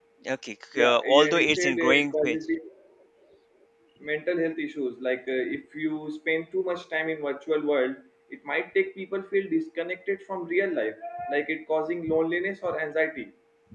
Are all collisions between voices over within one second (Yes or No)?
No